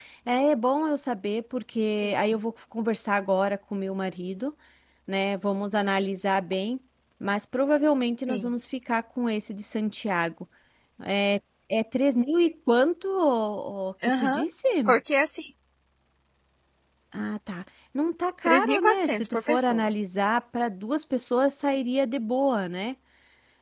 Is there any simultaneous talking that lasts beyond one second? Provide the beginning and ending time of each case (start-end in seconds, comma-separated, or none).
18.5-19.9